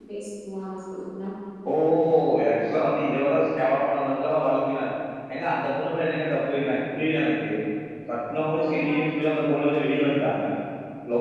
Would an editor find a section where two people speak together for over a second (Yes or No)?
No